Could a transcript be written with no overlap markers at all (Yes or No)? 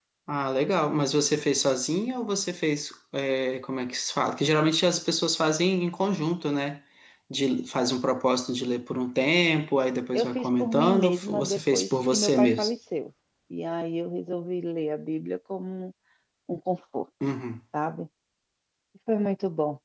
No